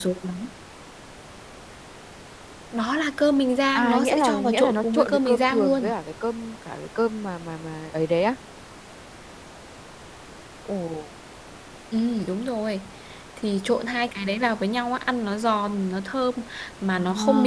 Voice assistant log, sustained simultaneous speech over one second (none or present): present